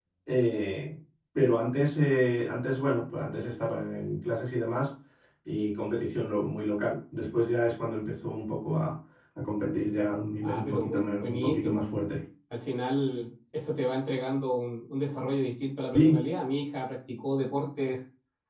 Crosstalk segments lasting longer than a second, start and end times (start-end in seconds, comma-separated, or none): 10.4-11.9